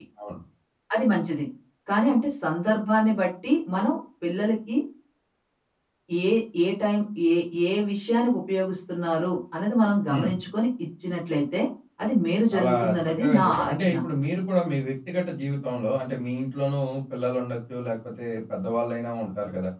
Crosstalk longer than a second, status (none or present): present